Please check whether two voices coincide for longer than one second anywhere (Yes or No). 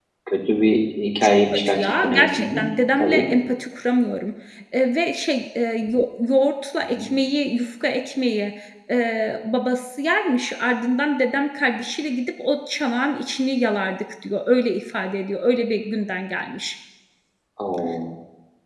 Yes